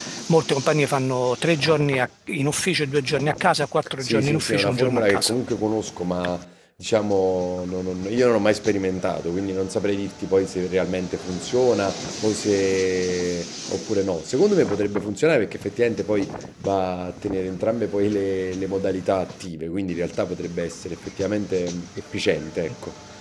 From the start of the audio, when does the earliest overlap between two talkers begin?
4.0 s

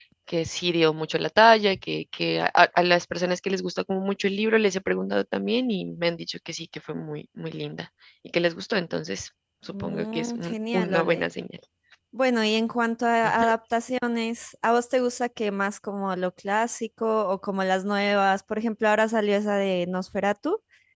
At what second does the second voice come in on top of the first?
9.7 s

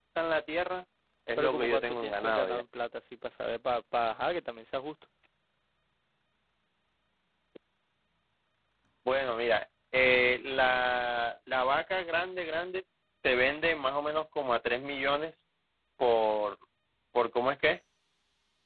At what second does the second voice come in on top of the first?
1.4 s

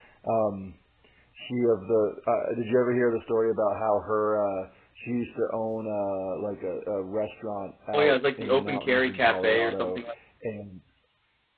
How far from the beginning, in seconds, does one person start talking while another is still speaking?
7.9 s

